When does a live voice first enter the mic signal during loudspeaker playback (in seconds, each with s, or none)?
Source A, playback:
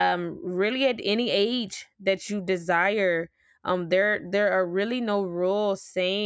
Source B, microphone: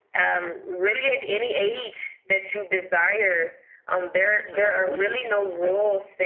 4.3 s